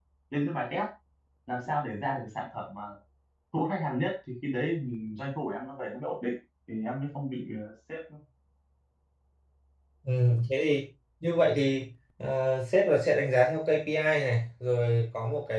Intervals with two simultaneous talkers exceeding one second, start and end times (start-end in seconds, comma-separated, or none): none